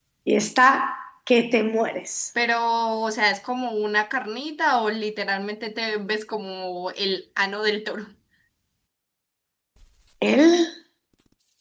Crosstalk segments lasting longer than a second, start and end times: none

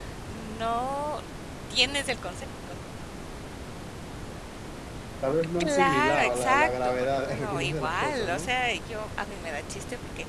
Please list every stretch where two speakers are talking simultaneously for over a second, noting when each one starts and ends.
5.6-8.5

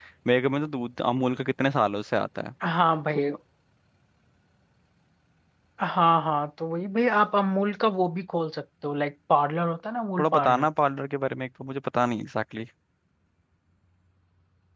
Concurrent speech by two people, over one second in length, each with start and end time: none

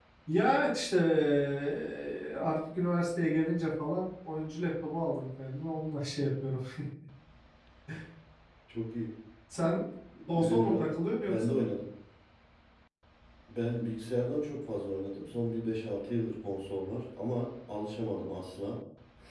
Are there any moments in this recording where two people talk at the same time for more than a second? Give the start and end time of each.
none

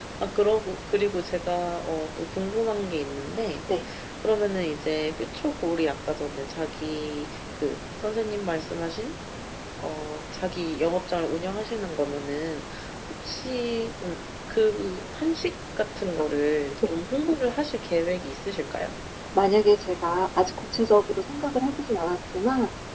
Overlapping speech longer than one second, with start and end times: none

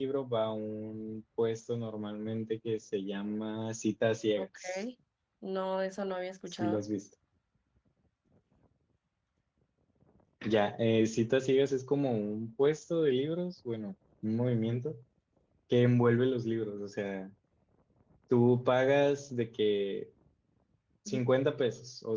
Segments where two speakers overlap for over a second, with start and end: none

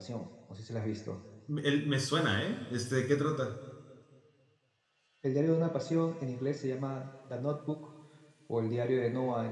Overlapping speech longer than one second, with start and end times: none

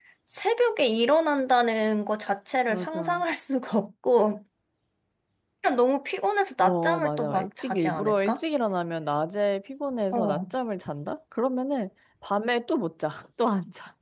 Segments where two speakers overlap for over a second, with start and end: 6.6-8.4

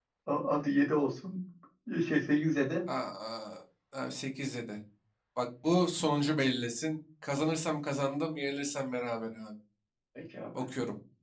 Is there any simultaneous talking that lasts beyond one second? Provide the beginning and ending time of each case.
none

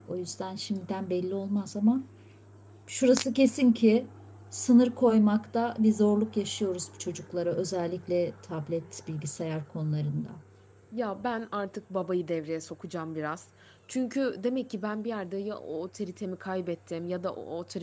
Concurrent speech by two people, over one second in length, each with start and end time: none

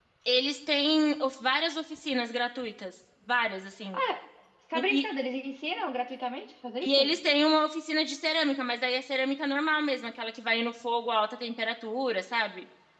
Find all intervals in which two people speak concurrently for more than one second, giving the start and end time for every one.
none

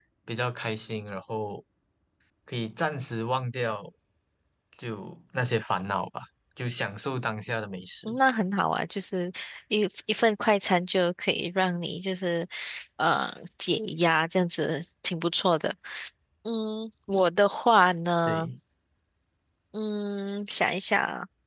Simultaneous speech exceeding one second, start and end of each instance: none

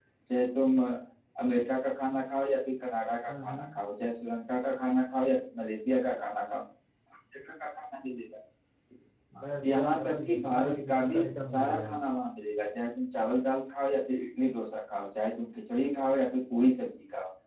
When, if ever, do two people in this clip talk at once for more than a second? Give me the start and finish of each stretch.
9.6-11.9

